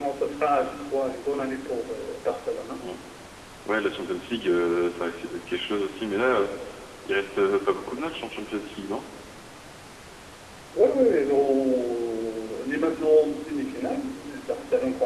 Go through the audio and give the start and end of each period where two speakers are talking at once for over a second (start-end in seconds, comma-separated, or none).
none